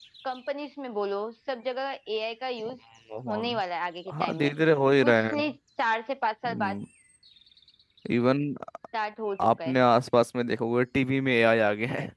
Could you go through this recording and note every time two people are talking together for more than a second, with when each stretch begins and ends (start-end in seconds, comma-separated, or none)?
none